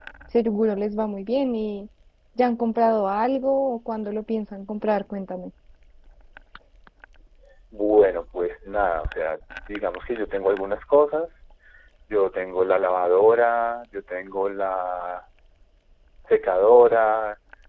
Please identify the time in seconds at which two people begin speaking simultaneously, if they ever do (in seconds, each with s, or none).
none